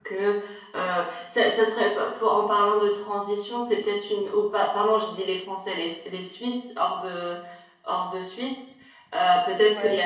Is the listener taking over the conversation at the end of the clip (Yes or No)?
No